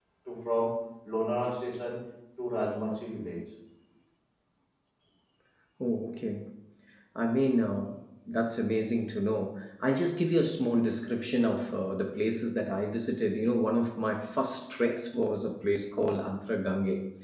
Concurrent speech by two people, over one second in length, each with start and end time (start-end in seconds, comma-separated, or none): none